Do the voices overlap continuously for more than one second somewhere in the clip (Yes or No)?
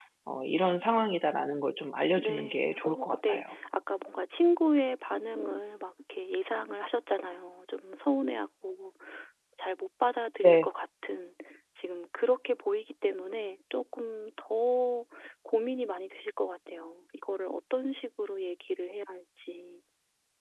Yes